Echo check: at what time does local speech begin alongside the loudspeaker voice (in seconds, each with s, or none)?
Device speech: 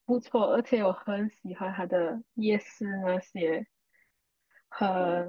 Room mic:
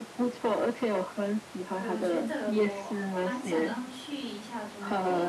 1.8 s